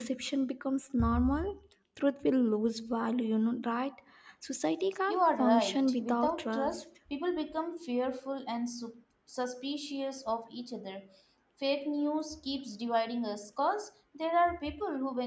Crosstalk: present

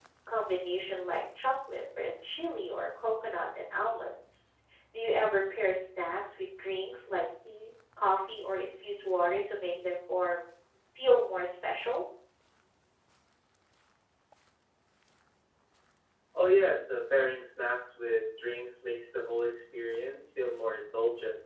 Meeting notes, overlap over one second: none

